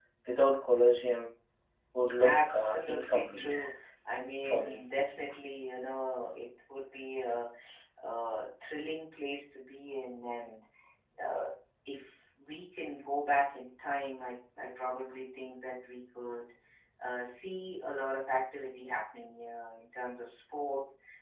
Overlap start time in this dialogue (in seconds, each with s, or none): 2.2 s